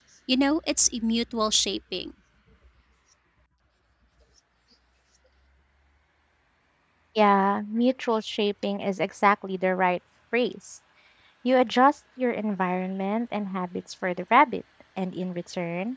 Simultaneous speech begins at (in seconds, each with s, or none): none